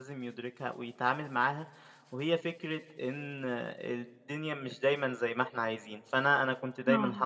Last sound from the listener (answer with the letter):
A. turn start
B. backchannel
B